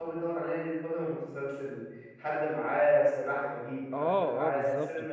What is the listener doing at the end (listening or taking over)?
taking over